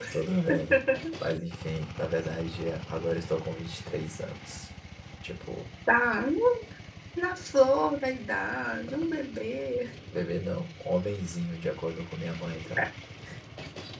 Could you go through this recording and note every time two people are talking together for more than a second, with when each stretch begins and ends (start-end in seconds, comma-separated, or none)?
none